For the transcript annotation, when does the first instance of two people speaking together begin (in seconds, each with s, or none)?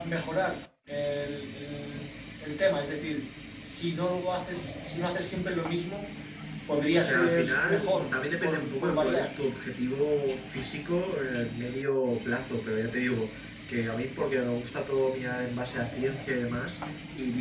6.9 s